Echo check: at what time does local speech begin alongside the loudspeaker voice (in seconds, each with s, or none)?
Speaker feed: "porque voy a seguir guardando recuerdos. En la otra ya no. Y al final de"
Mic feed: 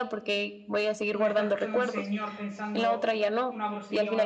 1.1 s